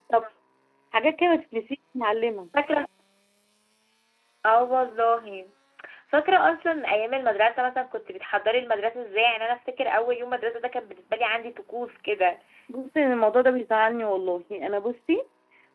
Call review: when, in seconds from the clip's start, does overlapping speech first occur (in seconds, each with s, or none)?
none